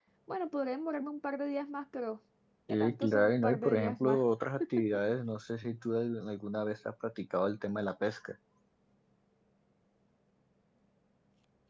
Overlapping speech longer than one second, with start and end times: 2.7-4.2

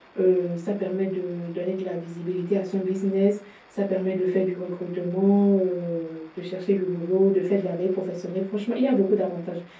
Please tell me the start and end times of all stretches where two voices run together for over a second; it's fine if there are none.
none

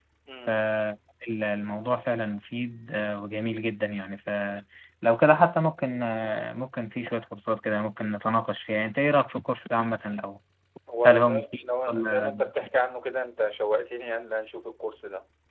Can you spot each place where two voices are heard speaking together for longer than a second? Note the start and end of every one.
11.0-12.4

